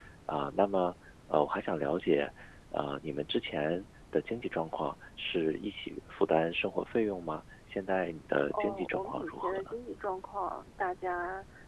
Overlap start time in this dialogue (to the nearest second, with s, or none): 9 s